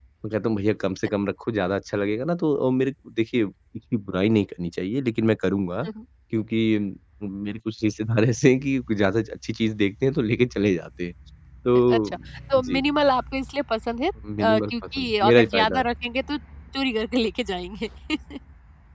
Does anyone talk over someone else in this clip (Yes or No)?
Yes